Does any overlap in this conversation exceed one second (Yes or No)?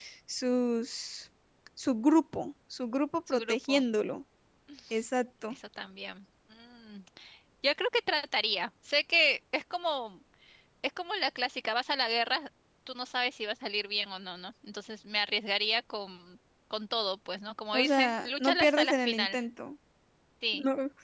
Yes